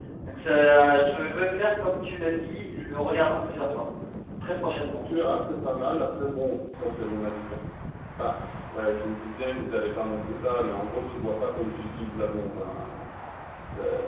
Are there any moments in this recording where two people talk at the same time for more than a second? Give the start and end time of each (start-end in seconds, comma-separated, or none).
none